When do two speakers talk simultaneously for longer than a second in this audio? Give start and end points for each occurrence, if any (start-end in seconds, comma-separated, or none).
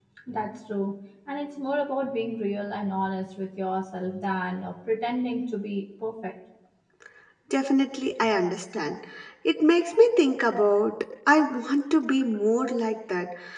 none